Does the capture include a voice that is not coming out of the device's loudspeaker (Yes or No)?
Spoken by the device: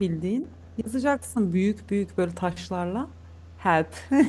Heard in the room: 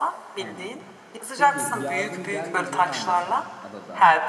Yes